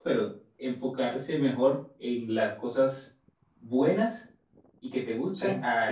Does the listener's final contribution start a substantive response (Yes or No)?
No